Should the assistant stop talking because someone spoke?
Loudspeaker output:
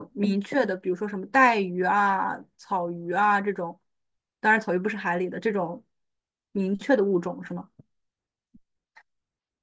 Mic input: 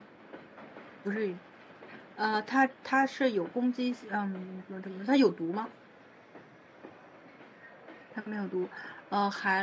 Yes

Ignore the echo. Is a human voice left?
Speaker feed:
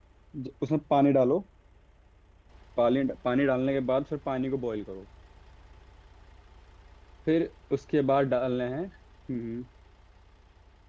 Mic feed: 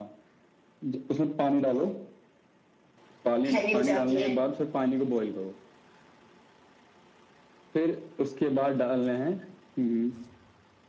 Yes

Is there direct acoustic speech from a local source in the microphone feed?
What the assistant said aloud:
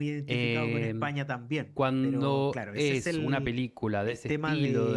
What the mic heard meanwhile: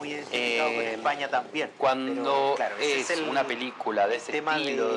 No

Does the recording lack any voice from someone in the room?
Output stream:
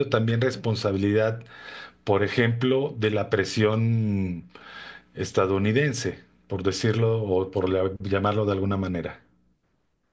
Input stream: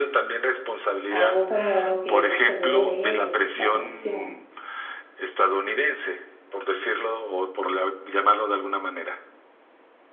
No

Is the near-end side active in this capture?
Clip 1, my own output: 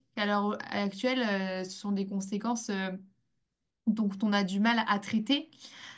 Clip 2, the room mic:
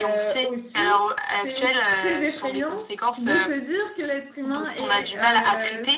Yes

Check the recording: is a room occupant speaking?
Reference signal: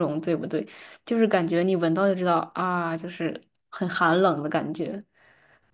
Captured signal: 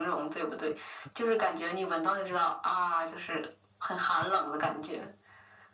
No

